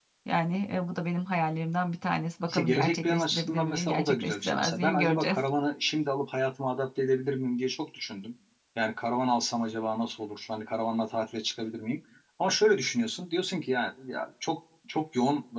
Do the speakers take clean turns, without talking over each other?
No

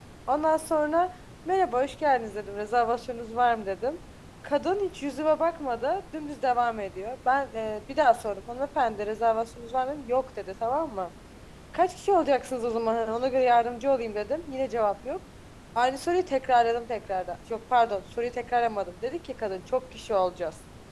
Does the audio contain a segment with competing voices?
No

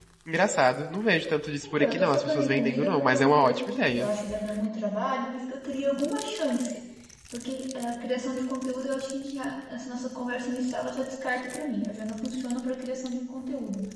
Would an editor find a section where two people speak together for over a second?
Yes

